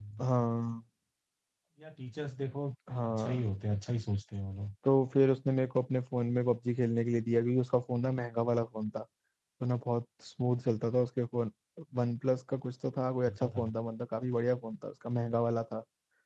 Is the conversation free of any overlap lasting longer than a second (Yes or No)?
Yes